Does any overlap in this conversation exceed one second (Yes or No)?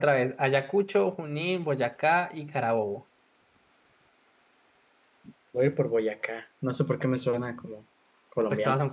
No